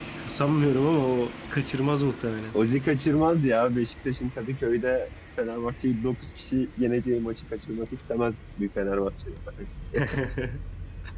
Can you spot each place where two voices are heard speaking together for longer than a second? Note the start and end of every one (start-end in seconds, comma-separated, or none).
none